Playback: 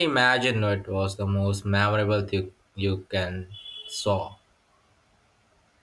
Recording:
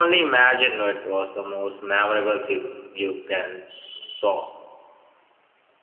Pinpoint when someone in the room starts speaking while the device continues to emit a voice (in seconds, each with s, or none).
none